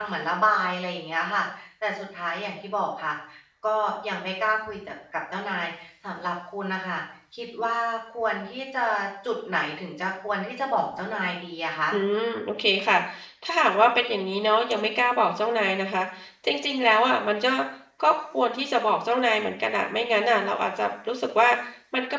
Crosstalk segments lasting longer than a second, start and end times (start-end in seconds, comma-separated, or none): none